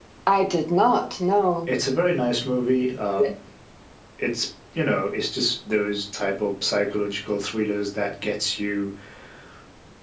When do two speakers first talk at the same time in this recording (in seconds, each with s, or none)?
none